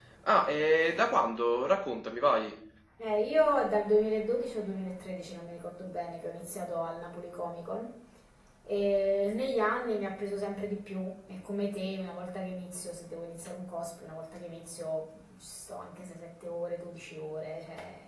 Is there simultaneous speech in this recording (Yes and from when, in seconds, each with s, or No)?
No